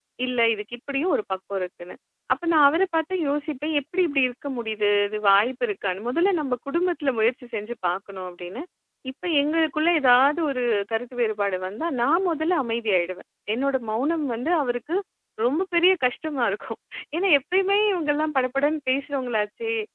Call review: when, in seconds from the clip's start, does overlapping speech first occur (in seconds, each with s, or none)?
none